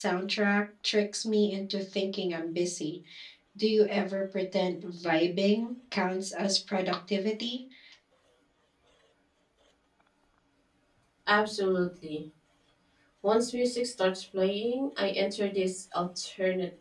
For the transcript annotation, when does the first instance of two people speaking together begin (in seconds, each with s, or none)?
none